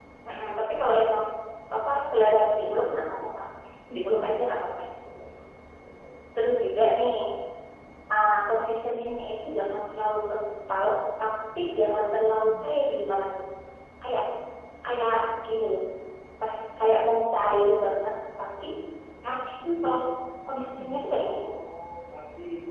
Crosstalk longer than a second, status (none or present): none